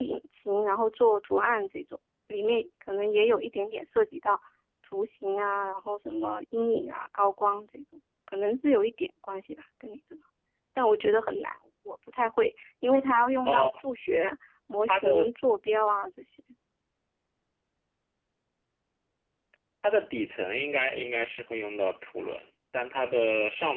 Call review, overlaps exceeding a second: none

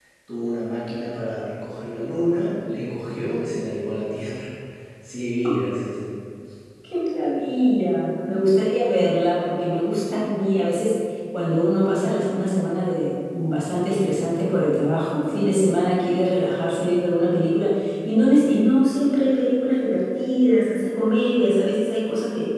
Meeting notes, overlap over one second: none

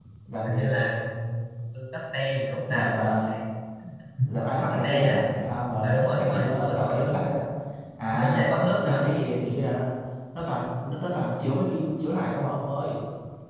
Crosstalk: present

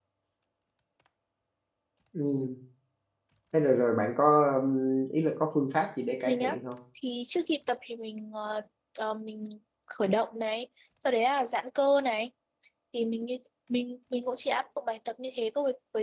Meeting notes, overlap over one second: none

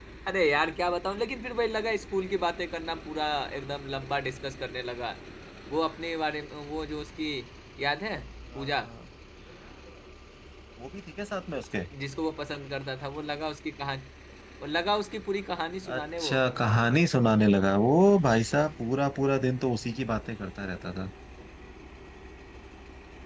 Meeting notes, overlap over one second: none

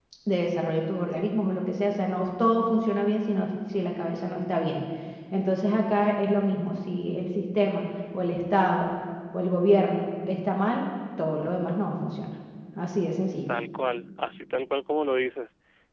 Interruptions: none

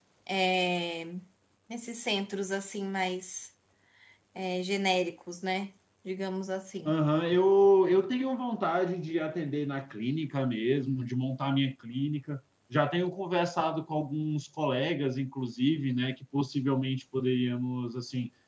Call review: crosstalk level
none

